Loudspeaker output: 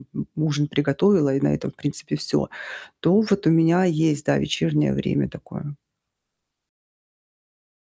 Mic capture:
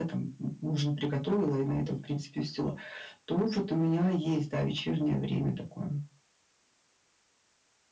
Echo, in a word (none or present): present